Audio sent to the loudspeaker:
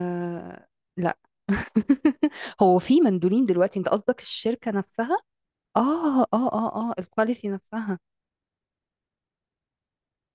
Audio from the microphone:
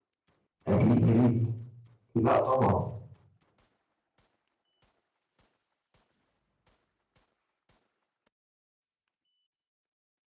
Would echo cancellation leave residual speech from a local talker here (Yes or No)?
Yes